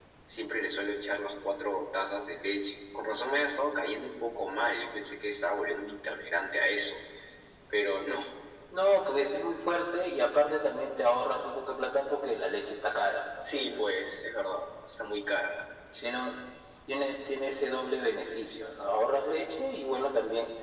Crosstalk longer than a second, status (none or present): none